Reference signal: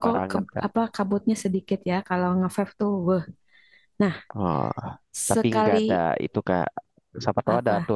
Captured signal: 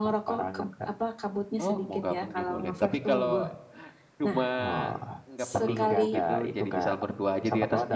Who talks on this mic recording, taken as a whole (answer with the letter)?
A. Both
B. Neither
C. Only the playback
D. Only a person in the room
A